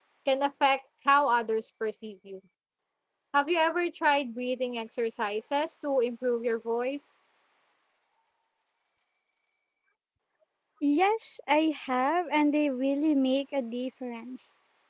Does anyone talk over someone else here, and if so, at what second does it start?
none

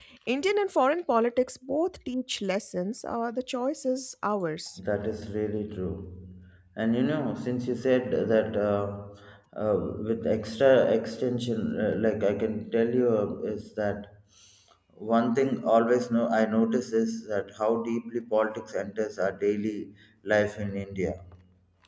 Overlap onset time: none

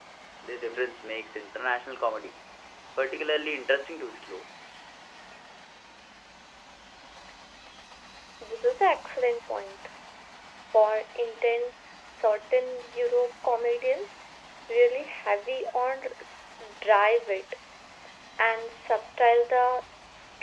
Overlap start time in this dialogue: none

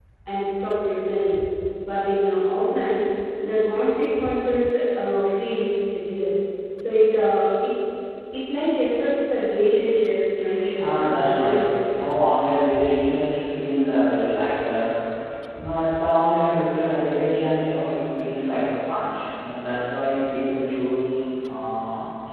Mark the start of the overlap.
11 s

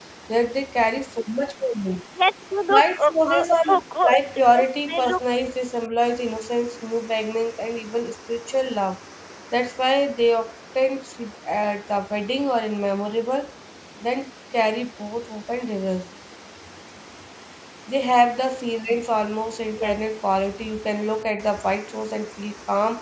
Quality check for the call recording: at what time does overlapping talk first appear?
3 s

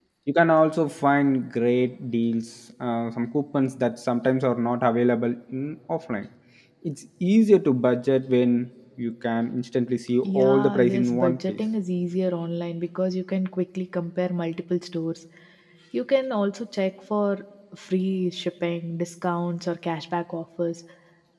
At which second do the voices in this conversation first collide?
10 s

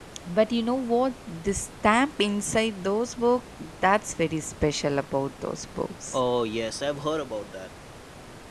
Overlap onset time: none

